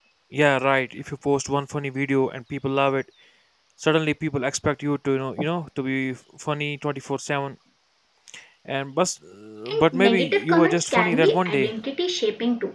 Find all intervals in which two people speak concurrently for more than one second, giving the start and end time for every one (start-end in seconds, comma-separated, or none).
9.7-11.7